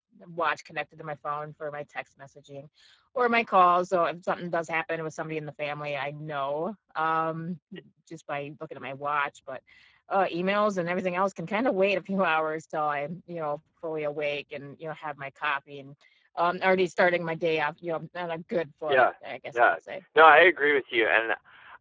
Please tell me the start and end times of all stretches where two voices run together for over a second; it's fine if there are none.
none

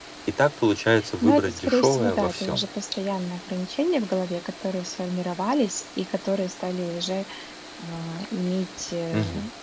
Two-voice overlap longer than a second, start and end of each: 1.2-2.6

